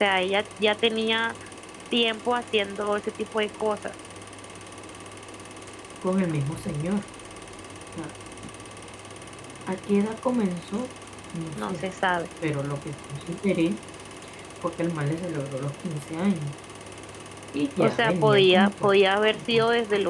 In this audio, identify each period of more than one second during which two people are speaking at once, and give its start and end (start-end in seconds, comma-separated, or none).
17.8-19.6